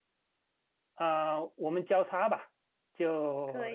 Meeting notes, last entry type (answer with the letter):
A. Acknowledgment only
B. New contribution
A